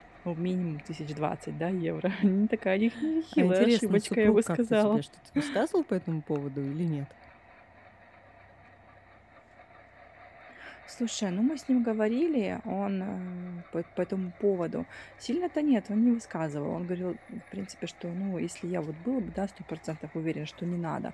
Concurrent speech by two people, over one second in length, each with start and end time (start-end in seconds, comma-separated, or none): 3.3-5.0